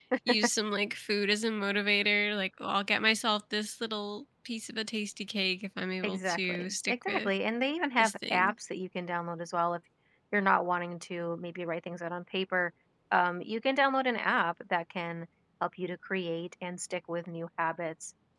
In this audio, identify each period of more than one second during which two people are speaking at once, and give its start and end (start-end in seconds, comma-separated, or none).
6.0-7.3